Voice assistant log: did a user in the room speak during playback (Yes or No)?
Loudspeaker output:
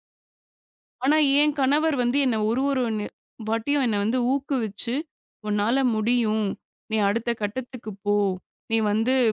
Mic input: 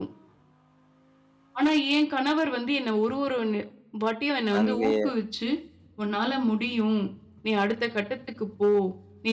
Yes